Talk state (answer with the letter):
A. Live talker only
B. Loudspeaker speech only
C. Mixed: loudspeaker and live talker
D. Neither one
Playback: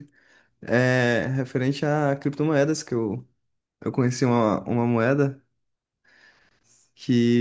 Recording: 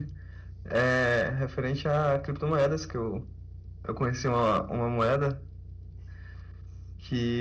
B